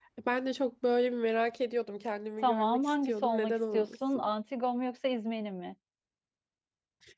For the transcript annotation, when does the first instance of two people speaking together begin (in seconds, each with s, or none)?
2.4 s